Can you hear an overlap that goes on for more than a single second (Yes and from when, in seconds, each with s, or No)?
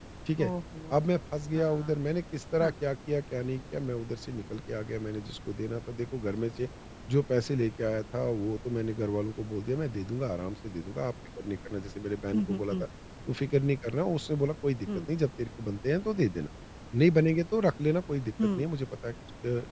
No